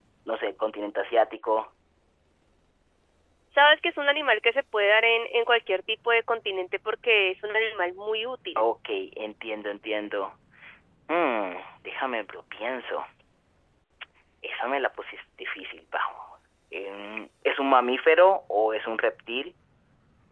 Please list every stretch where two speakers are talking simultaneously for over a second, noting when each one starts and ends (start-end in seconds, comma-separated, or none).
none